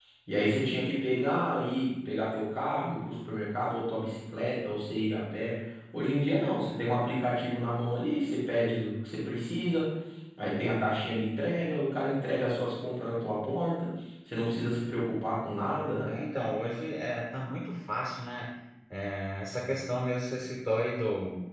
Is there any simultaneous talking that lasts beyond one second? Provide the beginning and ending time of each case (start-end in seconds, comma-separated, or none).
none